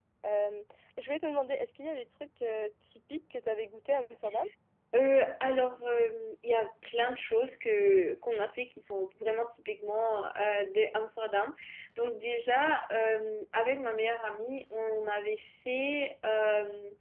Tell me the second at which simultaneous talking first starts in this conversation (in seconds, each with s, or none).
none